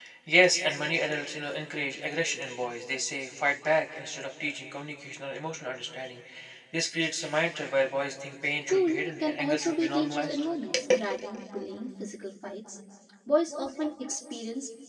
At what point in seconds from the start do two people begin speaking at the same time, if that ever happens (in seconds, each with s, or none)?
8.7 s